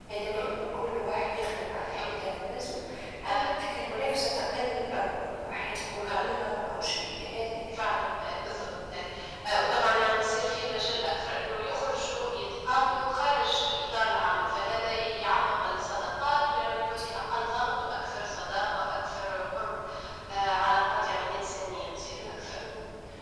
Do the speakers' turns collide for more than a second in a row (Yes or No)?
No